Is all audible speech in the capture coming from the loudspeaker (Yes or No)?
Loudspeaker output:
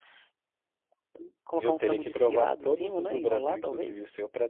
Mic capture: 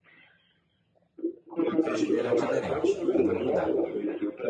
No